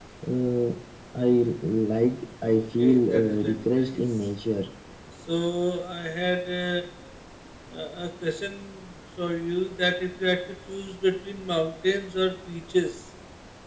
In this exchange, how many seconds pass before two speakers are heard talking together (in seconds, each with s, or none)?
2.4 s